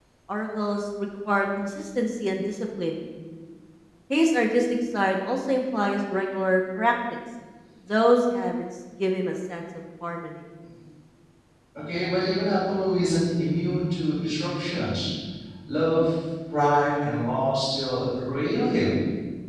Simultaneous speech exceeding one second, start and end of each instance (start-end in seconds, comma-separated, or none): none